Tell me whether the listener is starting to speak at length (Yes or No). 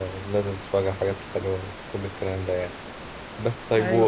No